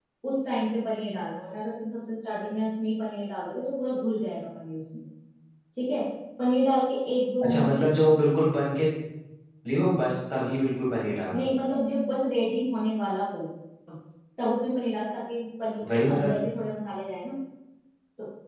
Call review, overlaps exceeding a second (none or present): none